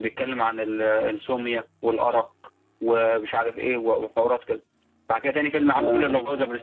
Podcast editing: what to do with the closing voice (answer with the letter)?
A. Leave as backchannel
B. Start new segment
A